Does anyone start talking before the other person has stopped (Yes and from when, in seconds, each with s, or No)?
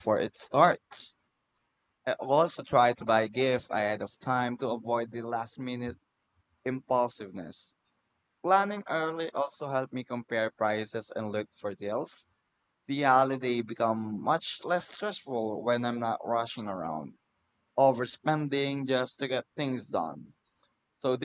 No